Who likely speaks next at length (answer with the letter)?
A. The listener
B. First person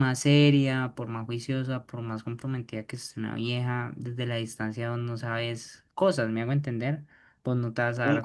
A